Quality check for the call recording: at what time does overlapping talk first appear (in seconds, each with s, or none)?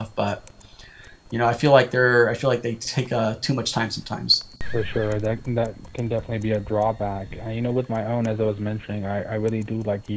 none